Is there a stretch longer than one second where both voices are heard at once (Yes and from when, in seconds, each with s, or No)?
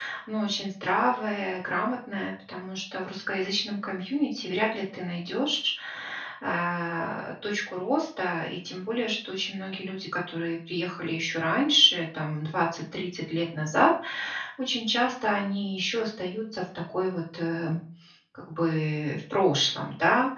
No